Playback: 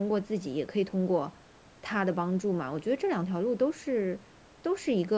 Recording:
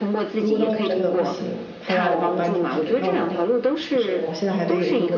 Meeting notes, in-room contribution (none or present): present